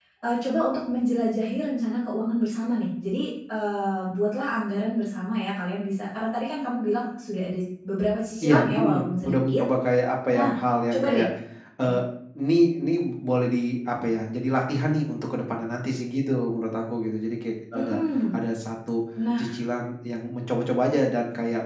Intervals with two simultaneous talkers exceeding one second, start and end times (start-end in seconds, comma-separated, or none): 8.4-9.6